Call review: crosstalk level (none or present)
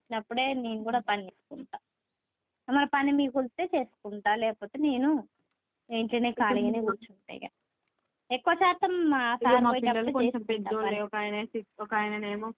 present